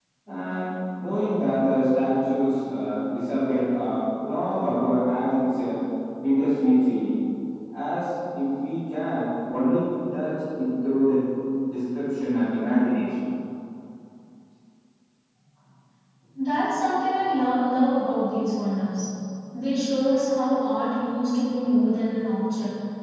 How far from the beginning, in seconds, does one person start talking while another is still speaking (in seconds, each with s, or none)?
none